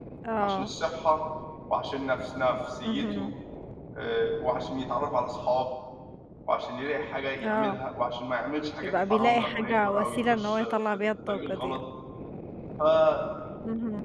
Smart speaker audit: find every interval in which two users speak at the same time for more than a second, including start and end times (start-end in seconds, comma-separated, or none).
8.8-11.8